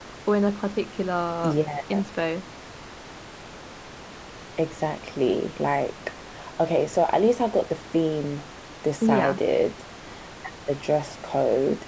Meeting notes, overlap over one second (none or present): none